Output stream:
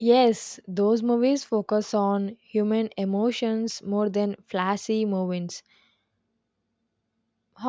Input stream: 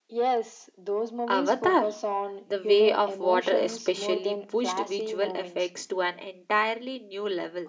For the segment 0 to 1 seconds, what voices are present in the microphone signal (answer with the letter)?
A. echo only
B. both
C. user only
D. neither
A